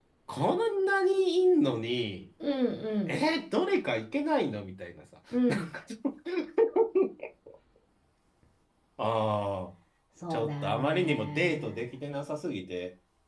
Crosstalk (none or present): present